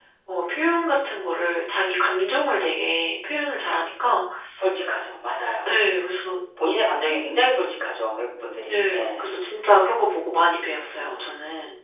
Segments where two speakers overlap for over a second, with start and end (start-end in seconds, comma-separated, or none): none